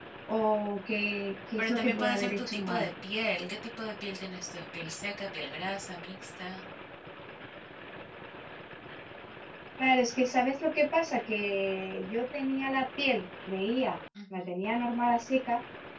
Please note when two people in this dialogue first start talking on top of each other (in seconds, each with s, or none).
1.6 s